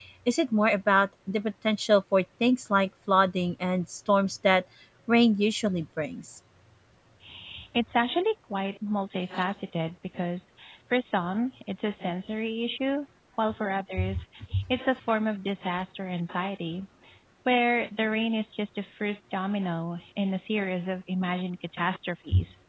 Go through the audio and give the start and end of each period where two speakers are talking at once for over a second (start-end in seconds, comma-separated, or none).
none